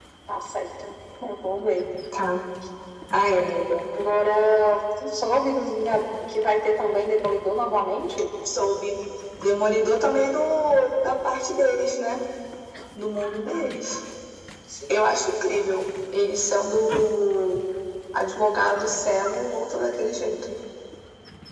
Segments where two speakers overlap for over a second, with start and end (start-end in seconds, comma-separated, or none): none